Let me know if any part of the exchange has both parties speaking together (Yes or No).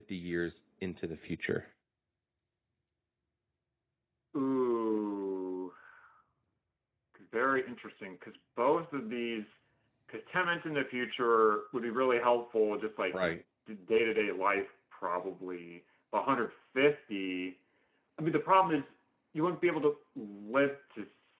No